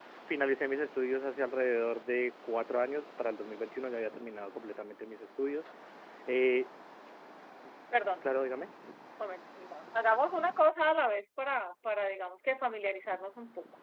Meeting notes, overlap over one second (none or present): none